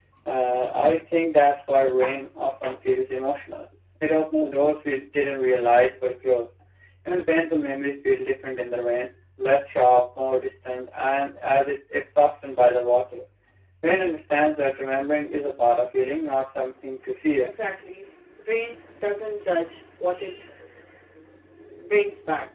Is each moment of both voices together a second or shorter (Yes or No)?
Yes